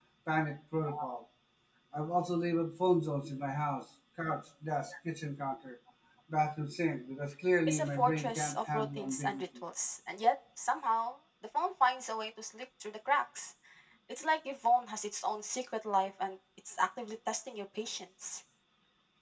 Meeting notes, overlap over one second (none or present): present